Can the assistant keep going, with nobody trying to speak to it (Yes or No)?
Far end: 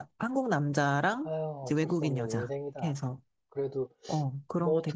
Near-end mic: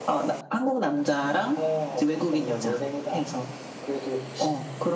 Yes